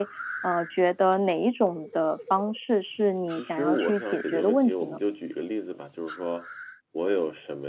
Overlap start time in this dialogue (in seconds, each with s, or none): 3.3 s